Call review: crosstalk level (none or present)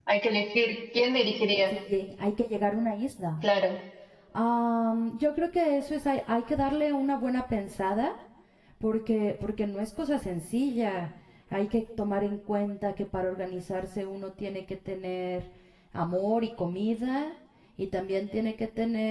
none